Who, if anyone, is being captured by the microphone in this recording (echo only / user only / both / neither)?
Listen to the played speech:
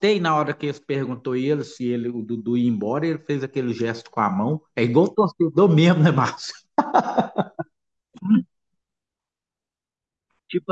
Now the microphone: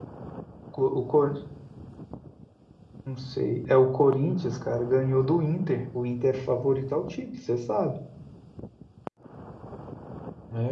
user only